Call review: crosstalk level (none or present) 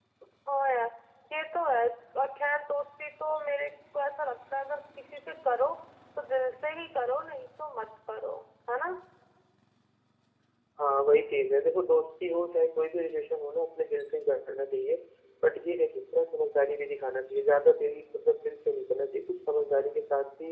none